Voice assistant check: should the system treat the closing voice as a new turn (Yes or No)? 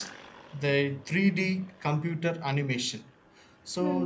No